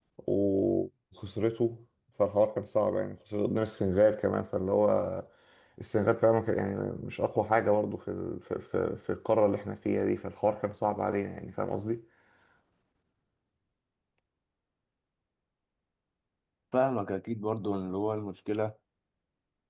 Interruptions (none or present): none